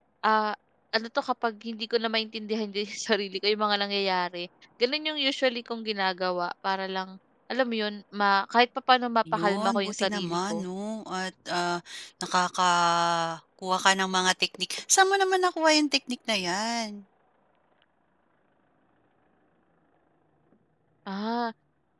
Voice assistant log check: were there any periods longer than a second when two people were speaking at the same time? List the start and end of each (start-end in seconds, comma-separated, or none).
9.3-10.7